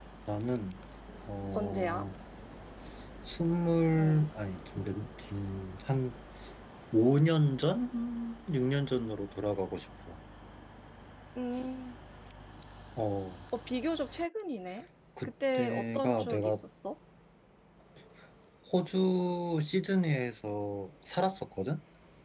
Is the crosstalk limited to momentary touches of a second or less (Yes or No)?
No